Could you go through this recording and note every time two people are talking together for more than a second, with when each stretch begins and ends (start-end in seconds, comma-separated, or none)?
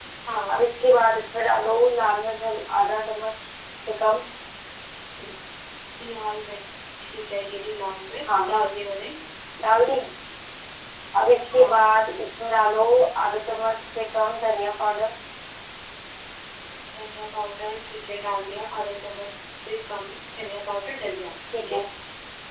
none